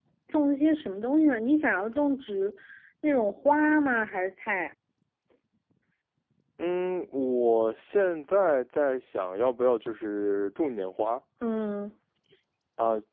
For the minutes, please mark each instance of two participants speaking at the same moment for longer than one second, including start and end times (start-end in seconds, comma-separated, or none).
none